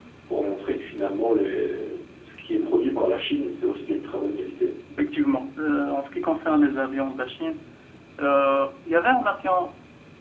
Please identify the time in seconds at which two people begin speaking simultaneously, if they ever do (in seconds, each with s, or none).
none